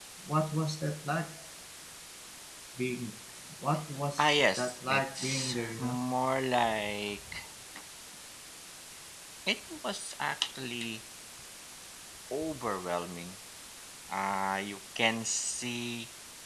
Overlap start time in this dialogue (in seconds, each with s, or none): 4.2 s